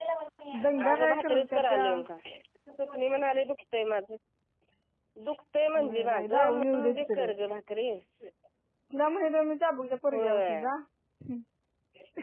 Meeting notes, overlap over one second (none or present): present